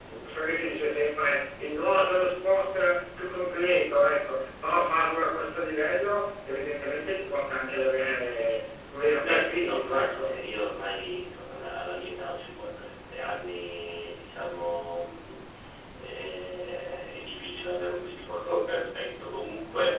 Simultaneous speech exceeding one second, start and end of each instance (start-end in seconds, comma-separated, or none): 9.1-10.4